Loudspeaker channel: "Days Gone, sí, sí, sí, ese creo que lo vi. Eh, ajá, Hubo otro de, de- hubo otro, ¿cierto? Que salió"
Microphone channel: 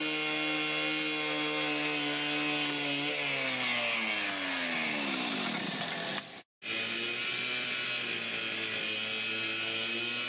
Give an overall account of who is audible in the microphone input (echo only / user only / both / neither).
neither